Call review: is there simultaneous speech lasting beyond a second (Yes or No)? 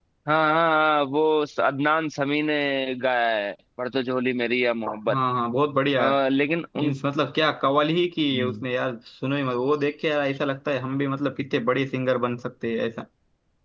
No